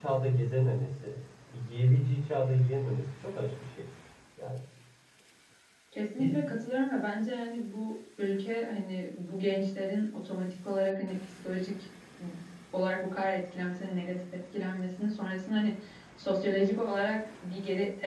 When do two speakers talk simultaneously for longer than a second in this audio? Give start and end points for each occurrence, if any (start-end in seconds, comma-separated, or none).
none